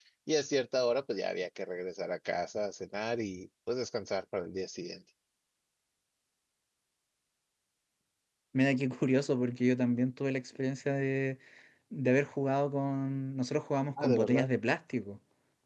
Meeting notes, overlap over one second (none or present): none